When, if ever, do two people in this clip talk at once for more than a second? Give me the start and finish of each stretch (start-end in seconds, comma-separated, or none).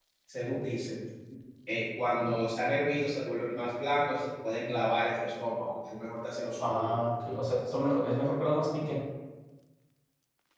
none